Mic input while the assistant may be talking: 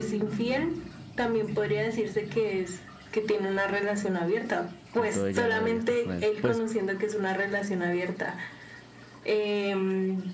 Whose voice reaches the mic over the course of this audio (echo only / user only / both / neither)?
both